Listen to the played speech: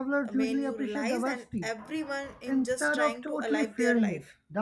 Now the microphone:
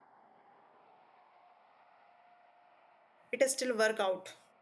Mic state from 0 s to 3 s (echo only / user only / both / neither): neither